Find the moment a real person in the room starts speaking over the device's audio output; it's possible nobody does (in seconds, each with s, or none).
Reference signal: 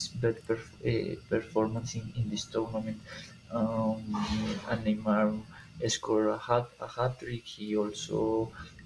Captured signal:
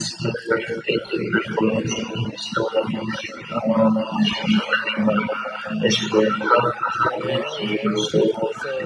7.1 s